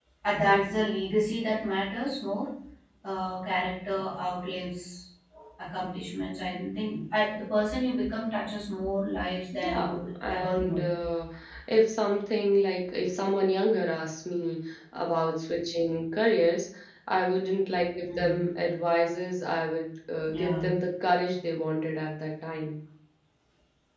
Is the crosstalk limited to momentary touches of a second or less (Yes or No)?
No